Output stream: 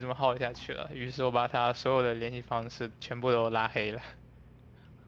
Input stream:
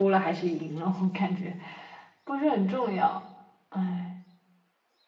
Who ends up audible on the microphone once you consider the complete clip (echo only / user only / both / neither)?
user only